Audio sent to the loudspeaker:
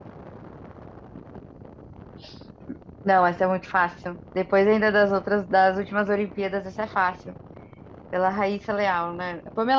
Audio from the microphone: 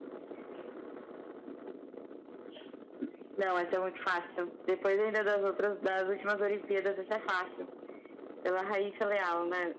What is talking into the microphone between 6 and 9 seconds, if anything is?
echo only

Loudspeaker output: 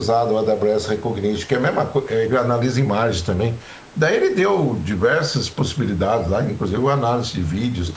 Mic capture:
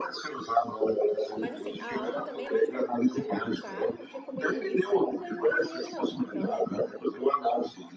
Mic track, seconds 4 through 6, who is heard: both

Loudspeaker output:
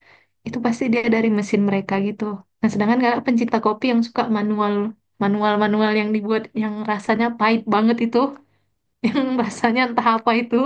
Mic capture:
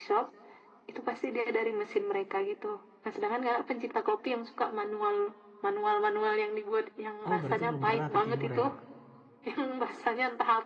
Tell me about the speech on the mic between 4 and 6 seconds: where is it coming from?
echo only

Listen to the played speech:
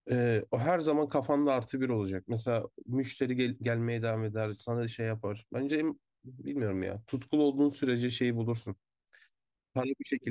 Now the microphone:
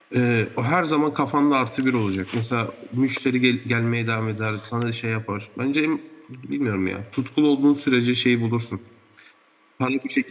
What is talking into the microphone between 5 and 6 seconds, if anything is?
echo only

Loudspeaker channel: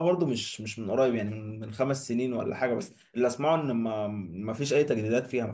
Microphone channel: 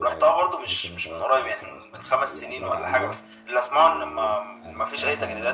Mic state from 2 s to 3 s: both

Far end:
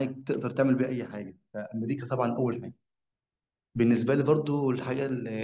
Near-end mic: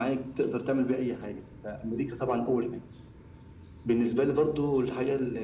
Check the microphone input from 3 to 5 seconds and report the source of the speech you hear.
echo only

